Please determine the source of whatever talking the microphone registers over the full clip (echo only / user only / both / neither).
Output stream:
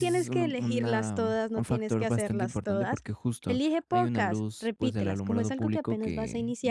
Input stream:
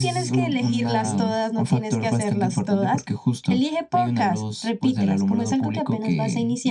both